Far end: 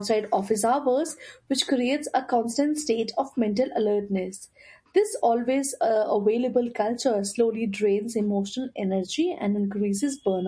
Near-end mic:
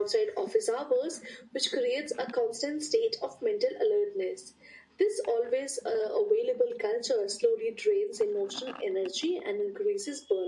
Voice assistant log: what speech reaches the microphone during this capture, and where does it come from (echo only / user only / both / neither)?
echo only